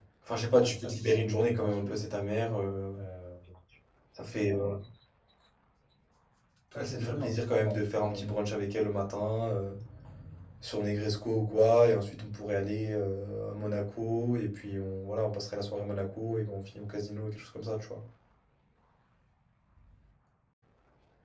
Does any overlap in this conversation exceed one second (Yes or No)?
Yes